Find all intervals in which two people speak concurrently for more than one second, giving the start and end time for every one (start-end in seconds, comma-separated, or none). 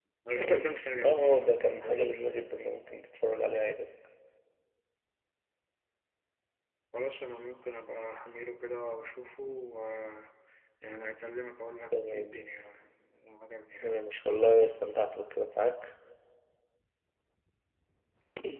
1.0-2.4